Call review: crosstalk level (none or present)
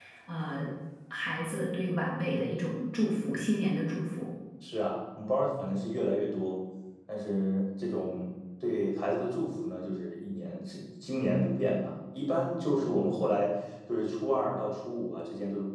none